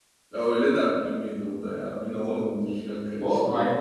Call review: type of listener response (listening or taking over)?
taking over